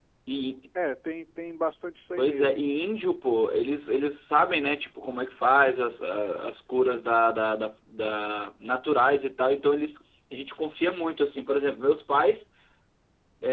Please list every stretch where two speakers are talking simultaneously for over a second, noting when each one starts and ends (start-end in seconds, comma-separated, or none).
none